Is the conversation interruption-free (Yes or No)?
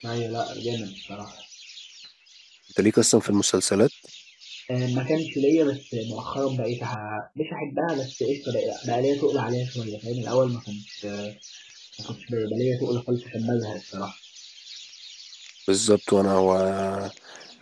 Yes